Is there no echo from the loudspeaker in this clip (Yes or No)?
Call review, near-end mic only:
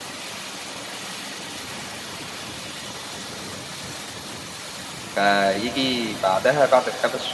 Yes